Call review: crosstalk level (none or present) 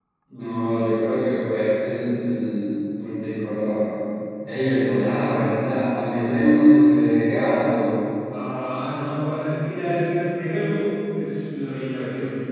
none